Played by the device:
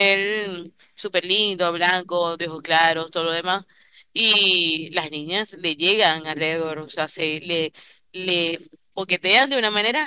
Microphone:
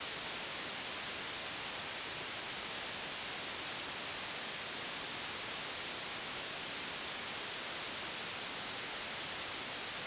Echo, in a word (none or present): none